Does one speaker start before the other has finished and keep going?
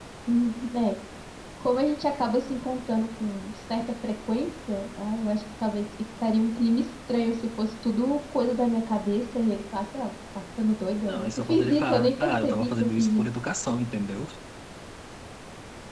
Yes, from 11.1 s

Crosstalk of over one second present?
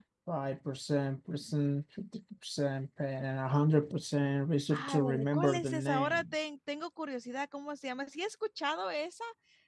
Yes, from 4.7 s

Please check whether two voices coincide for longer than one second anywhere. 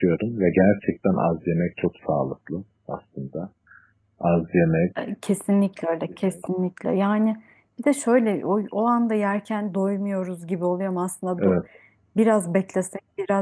No

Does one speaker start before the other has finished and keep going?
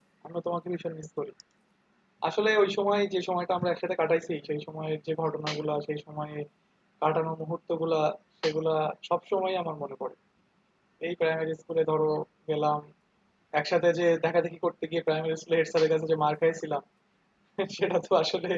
No

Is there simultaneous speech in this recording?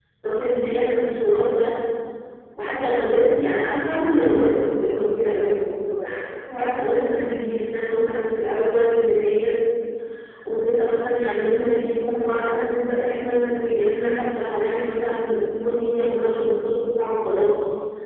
No

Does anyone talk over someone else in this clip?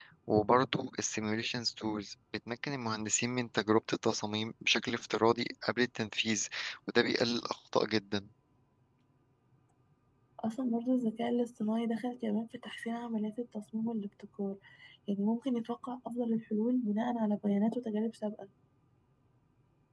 No

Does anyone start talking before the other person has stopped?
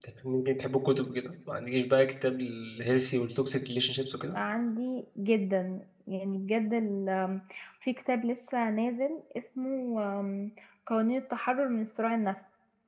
No

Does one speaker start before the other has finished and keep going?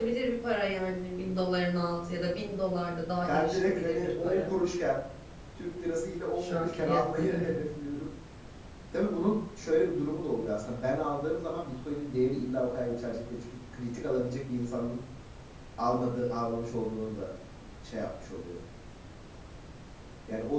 Yes, from 3.2 s

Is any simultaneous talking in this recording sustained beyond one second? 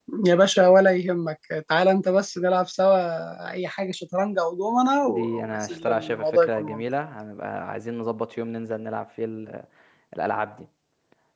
Yes, from 5.0 s

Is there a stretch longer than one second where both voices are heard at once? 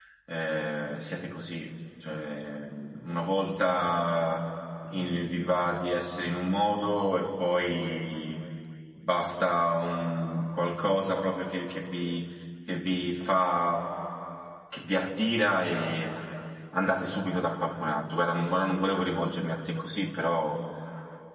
No

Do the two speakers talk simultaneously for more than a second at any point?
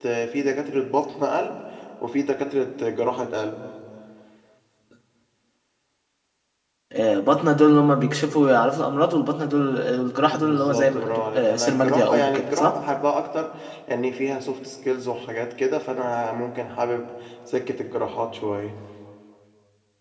Yes, from 10.3 s

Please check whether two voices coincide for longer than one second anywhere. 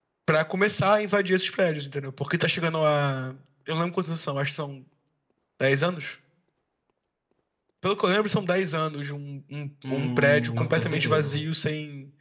Yes, from 9.8 s

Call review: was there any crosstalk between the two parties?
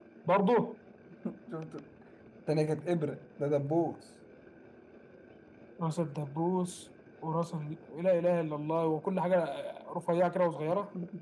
No

